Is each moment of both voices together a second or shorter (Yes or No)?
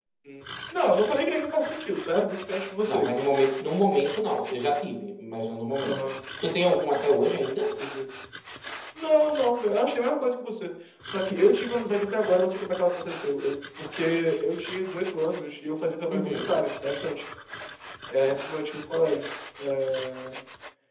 Yes